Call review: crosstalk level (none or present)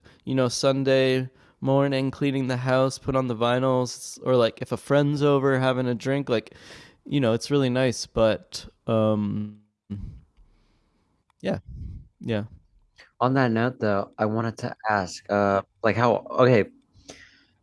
none